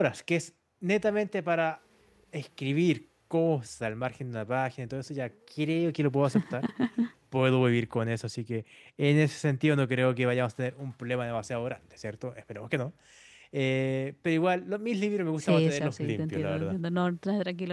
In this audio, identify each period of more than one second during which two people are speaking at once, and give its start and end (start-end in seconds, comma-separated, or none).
15.4-16.8